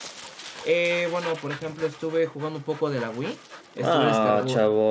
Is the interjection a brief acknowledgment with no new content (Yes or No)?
No